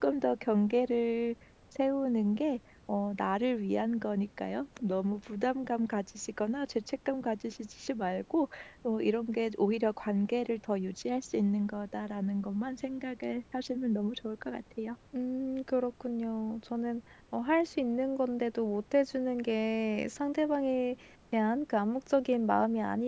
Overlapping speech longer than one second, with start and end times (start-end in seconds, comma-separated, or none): none